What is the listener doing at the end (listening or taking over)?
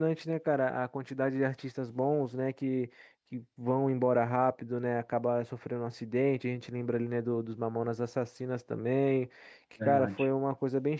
listening